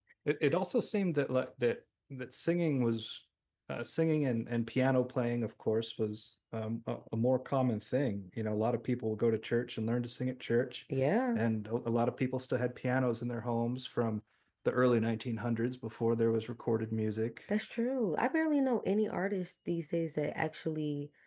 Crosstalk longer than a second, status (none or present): none